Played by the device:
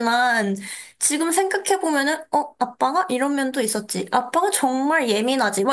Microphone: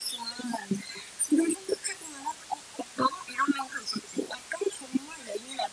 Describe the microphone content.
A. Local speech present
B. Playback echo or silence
B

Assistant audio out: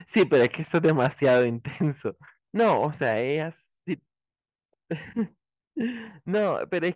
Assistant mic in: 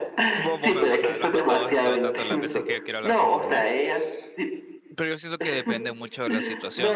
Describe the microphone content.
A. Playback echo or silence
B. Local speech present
B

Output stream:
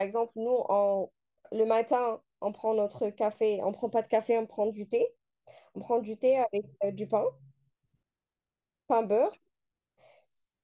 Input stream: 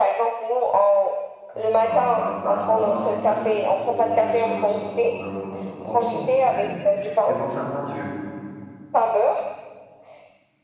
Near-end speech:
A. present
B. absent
A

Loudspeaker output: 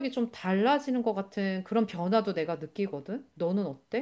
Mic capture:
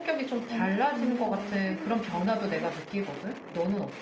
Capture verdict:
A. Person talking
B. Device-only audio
A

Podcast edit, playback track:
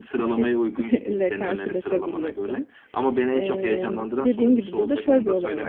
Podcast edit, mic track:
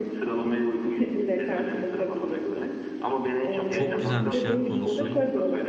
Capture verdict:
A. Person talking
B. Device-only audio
A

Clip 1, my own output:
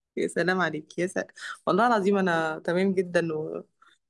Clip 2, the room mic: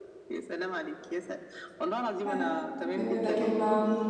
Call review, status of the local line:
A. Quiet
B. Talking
B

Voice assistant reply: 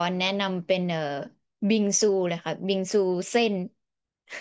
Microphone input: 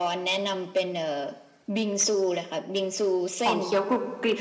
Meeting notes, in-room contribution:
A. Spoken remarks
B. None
A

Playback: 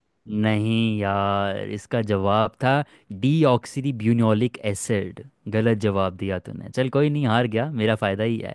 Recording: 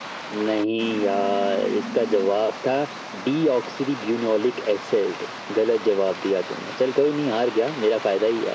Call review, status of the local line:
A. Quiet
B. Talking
A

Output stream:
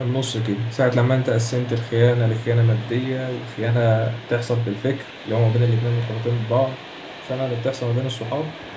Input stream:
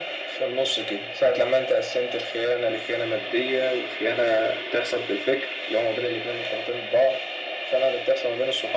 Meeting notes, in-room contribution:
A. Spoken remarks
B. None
B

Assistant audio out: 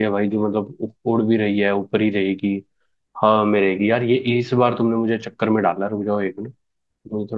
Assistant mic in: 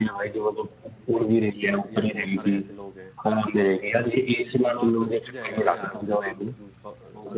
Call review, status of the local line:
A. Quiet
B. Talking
B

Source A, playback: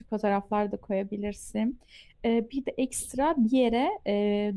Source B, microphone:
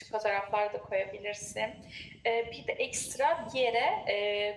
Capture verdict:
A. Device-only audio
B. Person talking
A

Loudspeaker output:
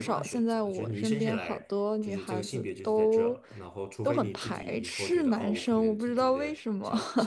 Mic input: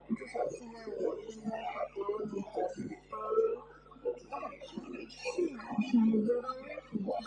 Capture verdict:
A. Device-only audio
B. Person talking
A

